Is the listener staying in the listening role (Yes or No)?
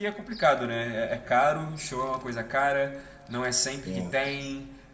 Yes